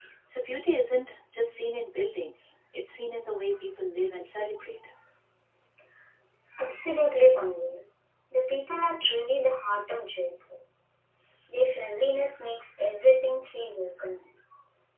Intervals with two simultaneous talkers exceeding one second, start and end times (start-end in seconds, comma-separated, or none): none